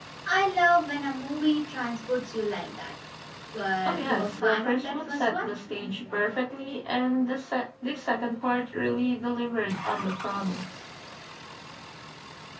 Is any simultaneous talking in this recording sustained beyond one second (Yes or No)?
Yes